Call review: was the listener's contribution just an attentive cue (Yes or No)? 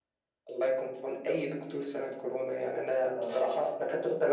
Yes